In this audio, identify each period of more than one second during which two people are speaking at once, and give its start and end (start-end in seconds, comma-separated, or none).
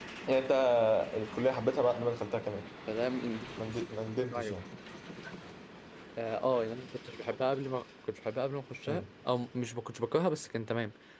none